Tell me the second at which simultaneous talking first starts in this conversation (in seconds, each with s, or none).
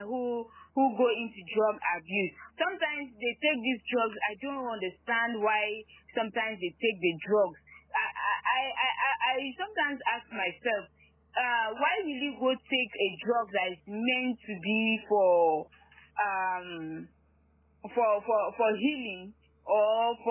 none